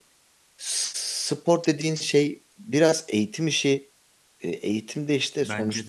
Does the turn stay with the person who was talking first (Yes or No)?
Yes